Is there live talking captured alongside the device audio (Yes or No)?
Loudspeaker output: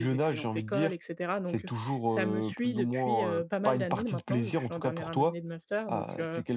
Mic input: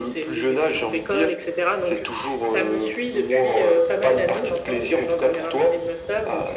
No